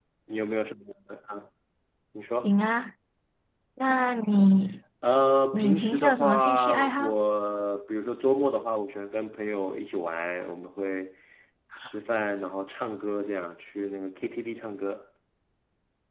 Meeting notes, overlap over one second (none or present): present